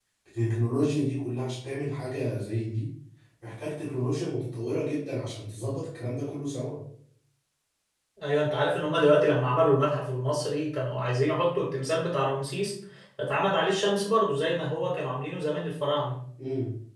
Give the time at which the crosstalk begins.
none

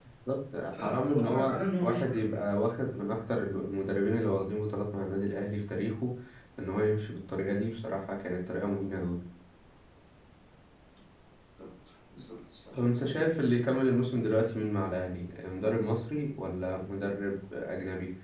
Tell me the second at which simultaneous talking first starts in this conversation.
0.8 s

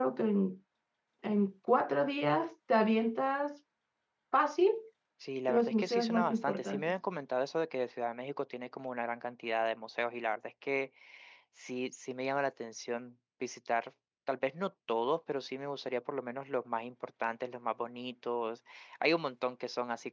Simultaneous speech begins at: 5.5 s

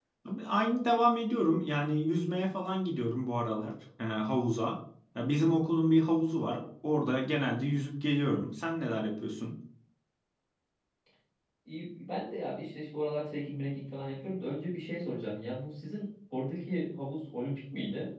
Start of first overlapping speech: none

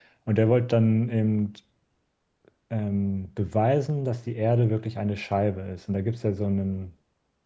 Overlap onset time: none

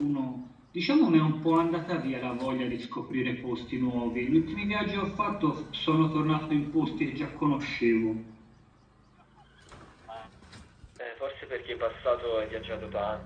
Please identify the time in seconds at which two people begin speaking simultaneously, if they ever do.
none

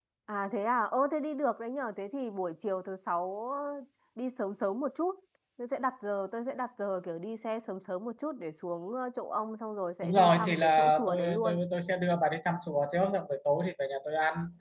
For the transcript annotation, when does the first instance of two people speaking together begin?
10.0 s

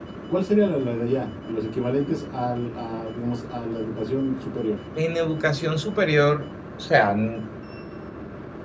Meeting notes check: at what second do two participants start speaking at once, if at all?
none

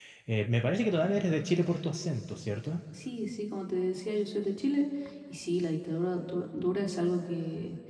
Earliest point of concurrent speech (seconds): none

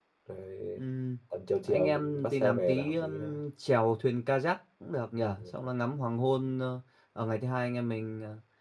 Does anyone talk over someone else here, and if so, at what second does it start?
1.6 s

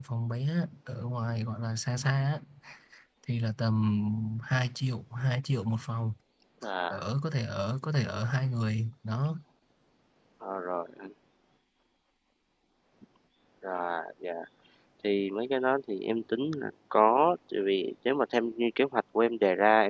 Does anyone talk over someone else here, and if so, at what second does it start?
none

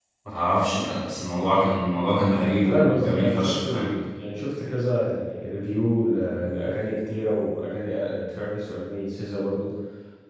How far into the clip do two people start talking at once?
2.6 s

